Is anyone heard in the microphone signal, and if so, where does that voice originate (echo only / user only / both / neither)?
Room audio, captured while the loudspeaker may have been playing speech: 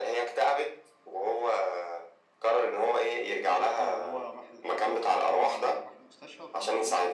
both